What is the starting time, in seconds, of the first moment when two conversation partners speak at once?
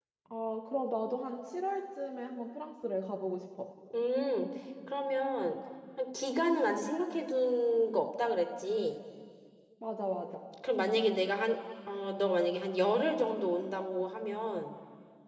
none

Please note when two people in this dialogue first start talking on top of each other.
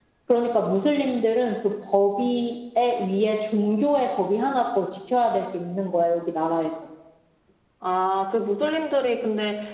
none

